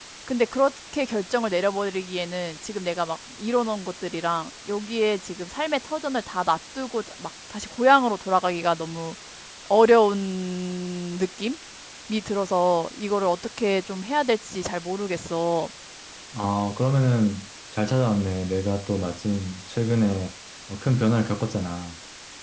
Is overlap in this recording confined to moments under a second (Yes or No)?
Yes